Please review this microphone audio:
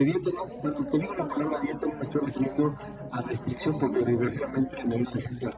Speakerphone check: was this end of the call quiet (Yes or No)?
No